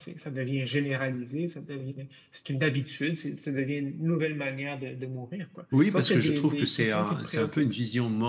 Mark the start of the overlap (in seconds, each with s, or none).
5.7 s